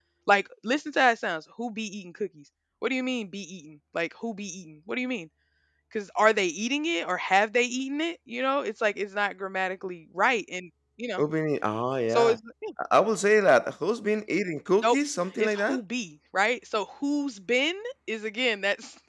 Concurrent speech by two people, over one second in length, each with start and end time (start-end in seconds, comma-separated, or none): none